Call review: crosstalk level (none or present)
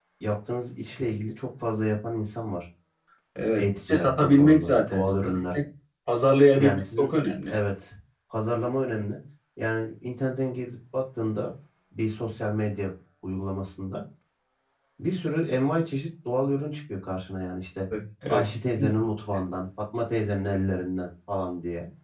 present